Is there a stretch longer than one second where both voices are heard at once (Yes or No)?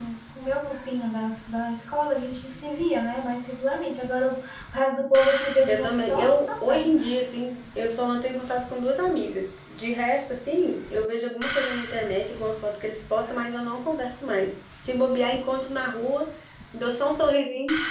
Yes